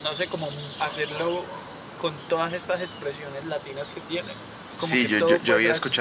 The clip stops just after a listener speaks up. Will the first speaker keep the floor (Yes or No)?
No